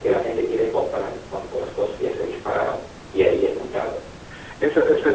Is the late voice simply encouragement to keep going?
No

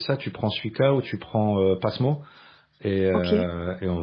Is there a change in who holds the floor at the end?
No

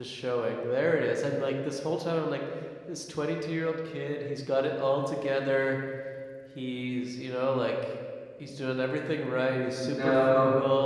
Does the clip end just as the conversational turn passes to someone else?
No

